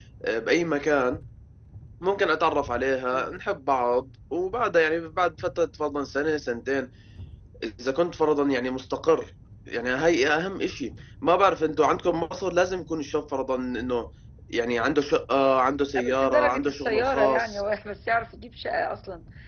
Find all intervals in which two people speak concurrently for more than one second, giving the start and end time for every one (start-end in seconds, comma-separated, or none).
16.0-17.6